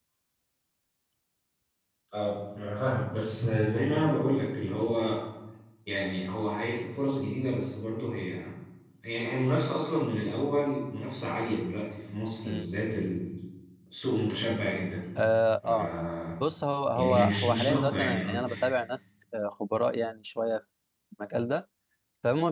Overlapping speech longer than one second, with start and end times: 16.9-18.5

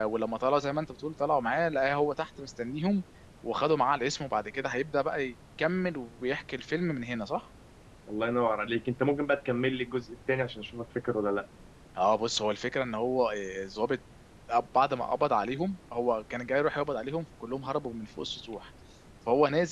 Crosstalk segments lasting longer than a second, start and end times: none

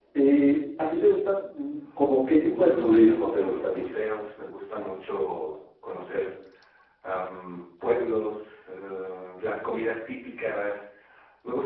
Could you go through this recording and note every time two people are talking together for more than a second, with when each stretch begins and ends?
2.4-3.9

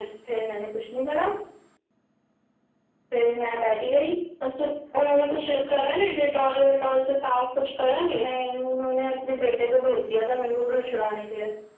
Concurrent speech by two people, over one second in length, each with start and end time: none

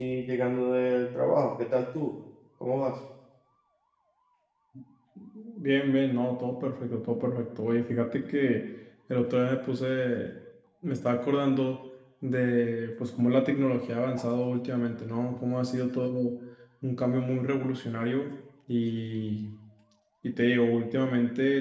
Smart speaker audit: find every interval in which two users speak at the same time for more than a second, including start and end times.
none

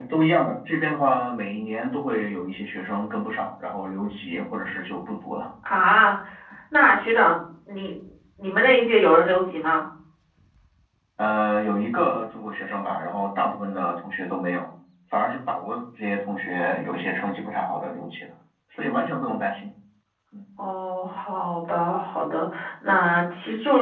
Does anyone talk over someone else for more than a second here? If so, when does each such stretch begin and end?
none

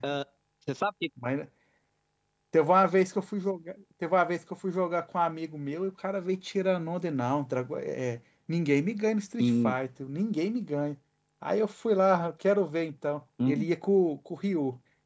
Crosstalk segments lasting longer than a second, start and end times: none

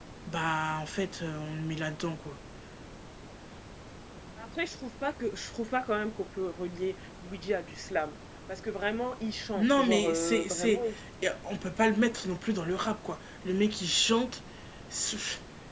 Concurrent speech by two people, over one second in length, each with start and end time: 9.6-10.8

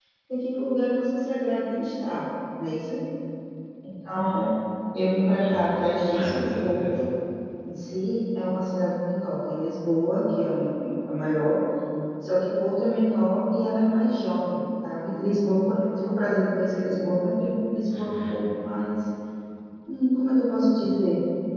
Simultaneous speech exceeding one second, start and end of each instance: 5.4-6.8

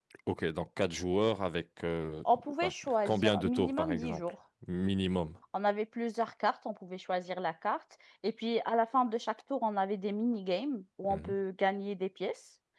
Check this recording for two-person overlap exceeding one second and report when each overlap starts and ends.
2.6-4.2

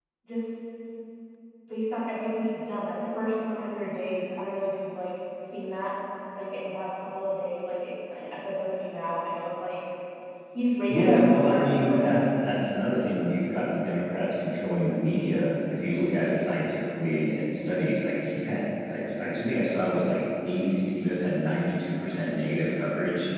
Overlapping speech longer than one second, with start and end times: 10.9-12.4

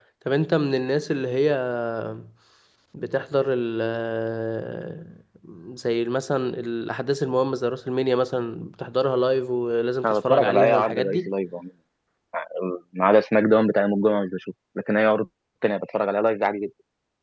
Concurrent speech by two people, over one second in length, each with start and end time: 10.1-11.3

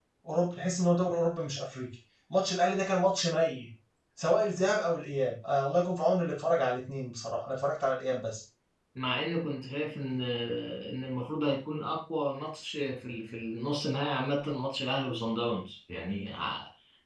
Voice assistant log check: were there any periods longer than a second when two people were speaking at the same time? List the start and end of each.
none

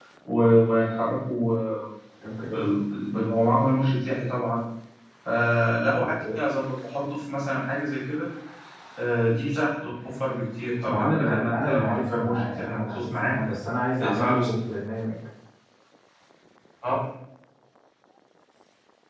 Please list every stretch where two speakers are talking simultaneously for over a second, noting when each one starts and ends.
10.8-13.4

